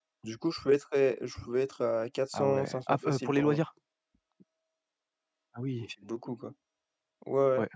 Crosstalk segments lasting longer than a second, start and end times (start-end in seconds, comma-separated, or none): 2.3-3.6